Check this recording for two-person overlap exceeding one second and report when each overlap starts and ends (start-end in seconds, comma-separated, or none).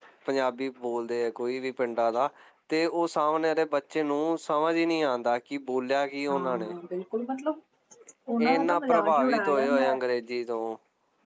8.4-10.0